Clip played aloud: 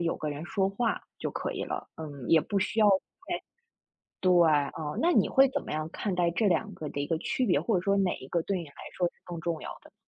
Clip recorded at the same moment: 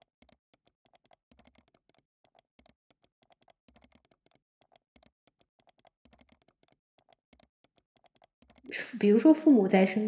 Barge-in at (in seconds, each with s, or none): 8.7 s